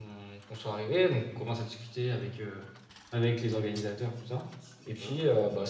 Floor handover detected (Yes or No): No